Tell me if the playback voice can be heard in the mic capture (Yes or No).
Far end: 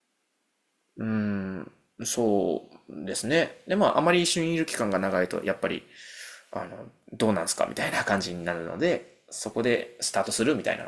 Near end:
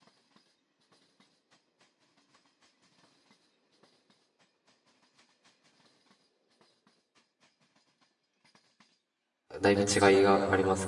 No